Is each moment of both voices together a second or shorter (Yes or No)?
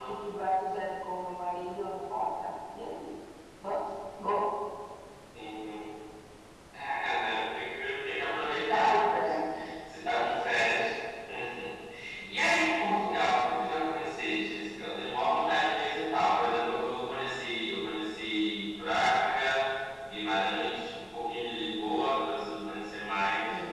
Yes